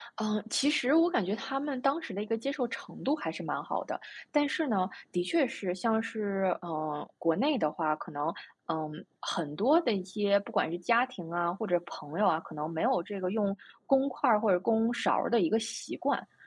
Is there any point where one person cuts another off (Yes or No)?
No